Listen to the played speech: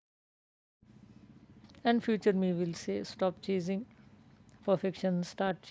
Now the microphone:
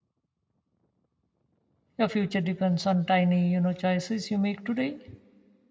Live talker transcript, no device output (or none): Your future depends on tiny, you know, choices you make today.